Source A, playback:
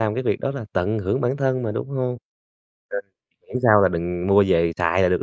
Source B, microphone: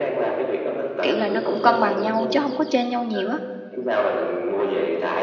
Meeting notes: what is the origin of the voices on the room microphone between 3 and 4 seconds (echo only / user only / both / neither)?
both